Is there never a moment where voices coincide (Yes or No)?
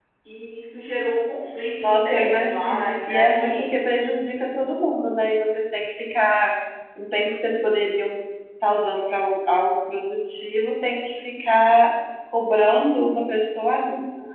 No